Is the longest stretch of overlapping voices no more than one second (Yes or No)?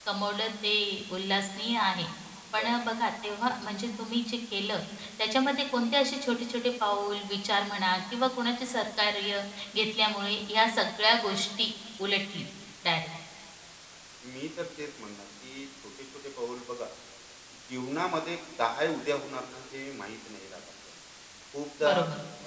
Yes